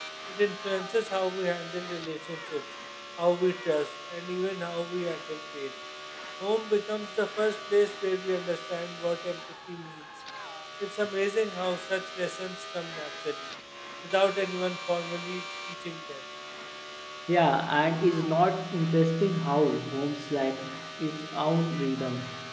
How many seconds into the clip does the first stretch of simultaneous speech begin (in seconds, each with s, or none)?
none